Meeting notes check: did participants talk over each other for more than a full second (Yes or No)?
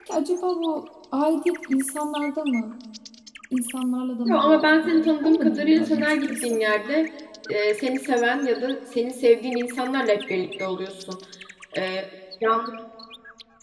Yes